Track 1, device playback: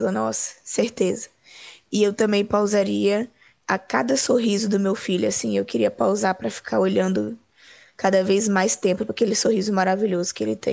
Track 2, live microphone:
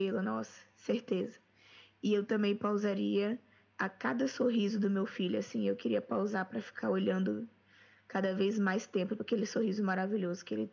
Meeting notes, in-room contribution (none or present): none